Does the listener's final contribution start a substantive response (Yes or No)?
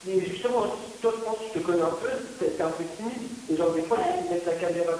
No